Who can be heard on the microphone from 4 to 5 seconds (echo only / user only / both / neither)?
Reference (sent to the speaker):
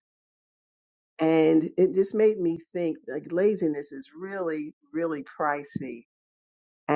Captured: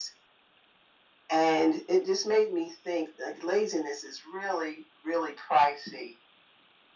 echo only